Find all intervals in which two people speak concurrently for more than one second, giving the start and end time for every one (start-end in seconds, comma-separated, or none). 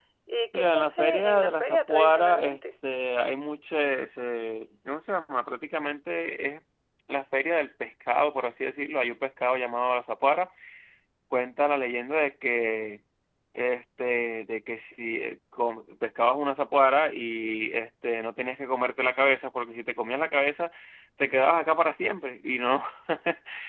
0.5-2.6